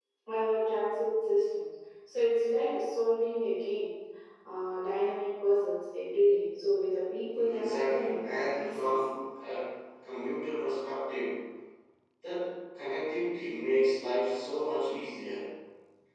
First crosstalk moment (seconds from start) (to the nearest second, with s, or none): 7 s